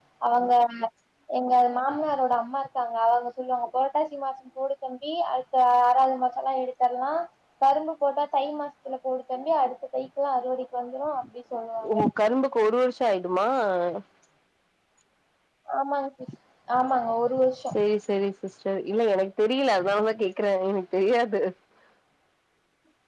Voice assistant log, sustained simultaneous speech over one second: none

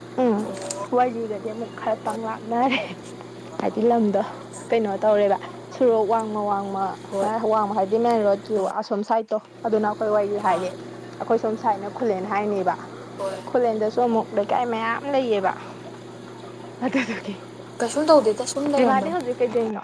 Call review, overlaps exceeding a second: none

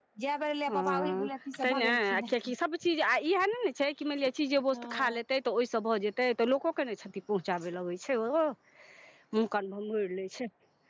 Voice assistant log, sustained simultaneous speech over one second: present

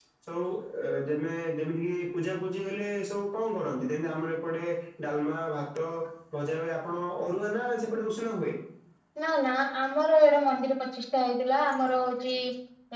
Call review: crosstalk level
none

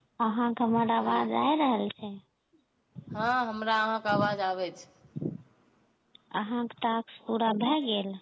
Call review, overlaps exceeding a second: none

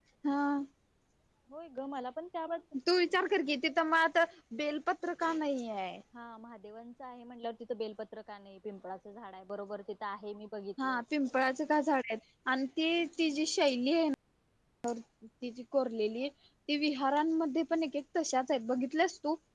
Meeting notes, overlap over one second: none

